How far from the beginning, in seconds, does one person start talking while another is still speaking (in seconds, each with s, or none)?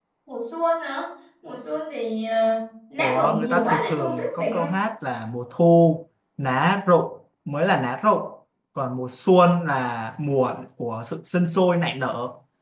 3.0 s